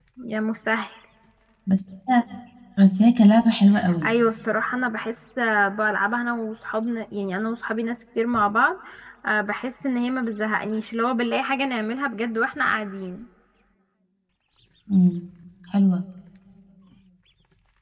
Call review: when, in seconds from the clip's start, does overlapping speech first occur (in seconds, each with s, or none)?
none